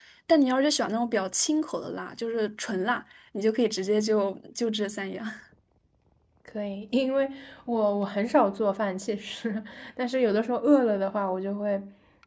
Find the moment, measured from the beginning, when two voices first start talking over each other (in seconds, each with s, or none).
none